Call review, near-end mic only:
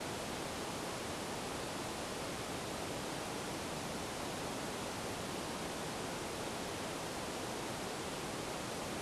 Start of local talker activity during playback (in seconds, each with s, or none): none